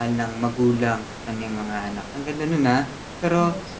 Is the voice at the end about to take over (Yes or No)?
No